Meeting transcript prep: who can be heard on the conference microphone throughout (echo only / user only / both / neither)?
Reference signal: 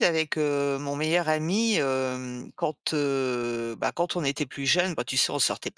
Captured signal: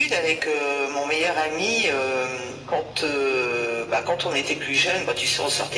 echo only